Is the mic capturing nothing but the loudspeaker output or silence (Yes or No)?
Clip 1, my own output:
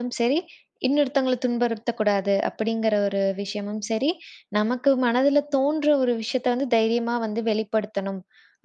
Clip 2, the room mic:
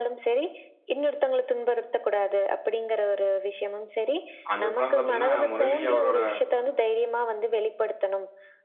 No